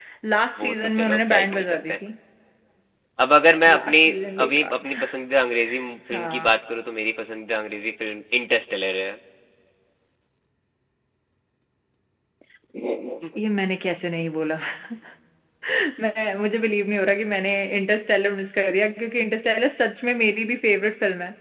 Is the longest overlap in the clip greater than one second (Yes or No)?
Yes